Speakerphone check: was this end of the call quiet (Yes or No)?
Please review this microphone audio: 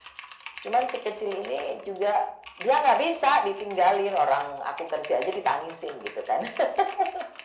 Yes